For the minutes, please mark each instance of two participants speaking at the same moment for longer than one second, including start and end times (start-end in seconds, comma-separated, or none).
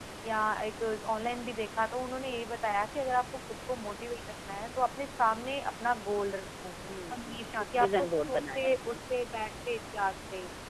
7.1-9.0